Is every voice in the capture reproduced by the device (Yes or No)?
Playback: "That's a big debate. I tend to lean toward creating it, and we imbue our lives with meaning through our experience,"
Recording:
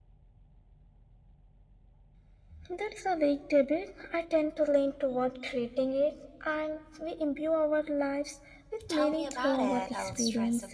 No